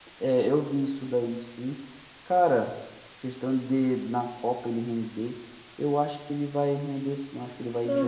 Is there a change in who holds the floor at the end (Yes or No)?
Yes